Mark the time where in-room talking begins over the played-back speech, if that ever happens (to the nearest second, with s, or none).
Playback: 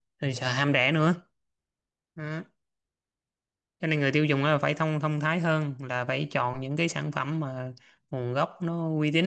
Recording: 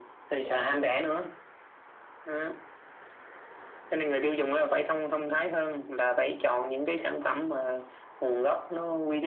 none